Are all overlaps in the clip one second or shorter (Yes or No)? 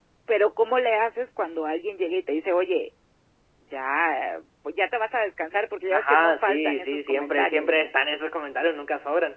No